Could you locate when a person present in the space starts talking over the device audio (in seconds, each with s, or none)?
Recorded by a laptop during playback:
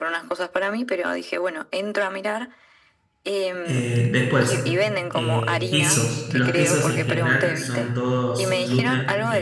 3.6 s